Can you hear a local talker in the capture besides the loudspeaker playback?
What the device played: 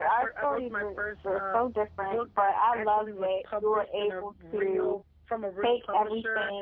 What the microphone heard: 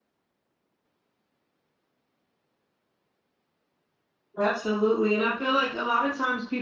Yes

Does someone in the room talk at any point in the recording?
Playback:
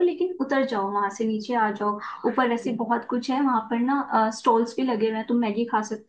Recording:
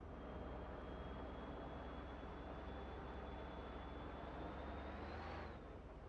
No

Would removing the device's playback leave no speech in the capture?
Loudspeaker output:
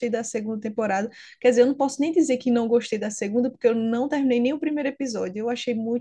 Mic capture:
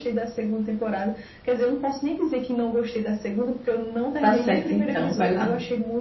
No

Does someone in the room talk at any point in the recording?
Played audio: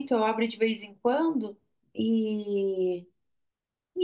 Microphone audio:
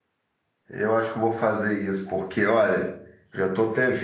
Yes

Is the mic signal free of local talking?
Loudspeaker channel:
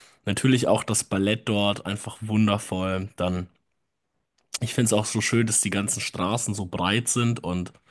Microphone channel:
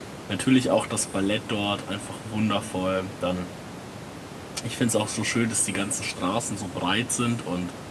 Yes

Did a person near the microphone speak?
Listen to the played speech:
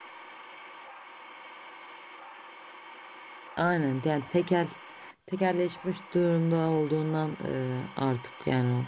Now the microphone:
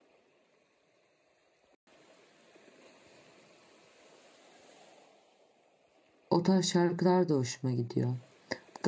Yes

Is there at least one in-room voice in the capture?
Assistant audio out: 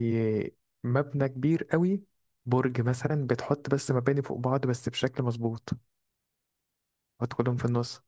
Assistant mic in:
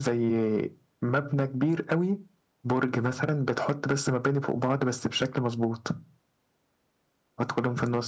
No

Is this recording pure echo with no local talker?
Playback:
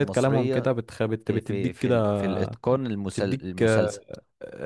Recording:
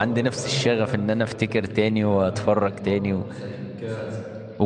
No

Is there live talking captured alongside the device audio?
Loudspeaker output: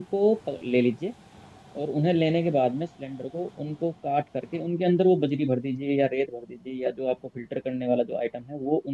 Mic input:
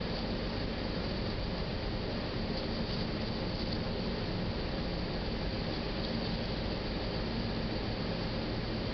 No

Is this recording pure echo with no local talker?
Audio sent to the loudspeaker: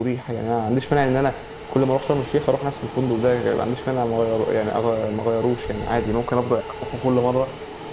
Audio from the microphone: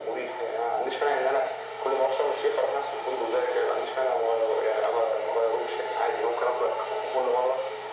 Yes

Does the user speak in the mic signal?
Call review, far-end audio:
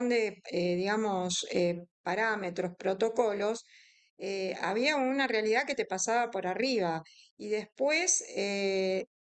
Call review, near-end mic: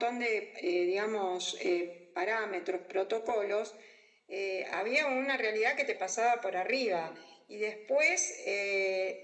No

